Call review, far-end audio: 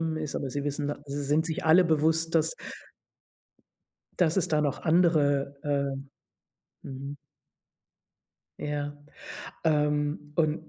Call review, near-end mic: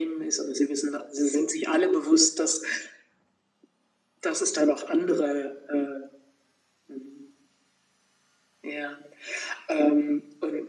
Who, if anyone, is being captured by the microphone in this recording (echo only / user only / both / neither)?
echo only